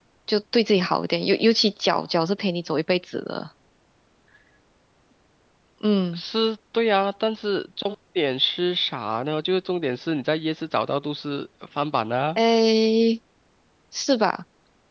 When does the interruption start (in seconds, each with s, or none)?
none